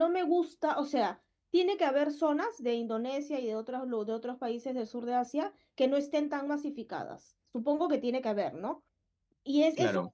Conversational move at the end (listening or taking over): listening